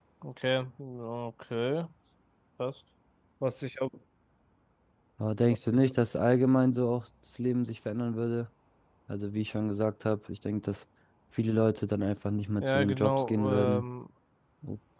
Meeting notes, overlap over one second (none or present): present